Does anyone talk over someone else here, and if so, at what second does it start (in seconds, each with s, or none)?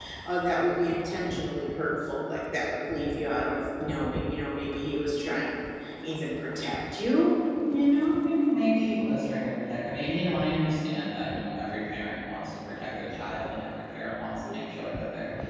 none